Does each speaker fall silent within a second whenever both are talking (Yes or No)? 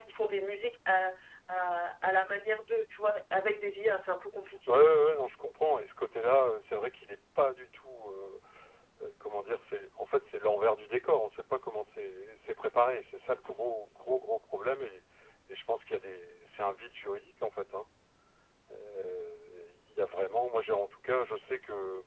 Yes